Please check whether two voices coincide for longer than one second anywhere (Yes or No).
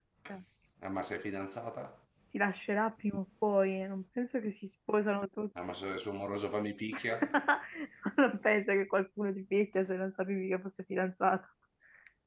No